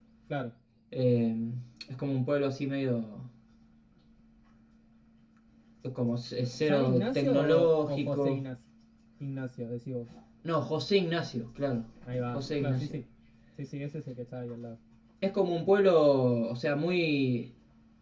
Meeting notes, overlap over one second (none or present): present